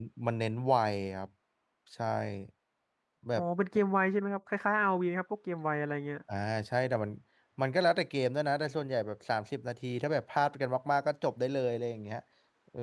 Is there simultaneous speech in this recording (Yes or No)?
No